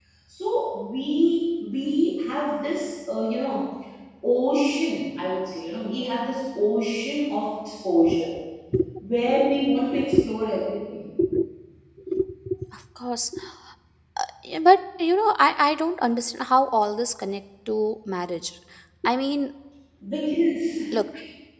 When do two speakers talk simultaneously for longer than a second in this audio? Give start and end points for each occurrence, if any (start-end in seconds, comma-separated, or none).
none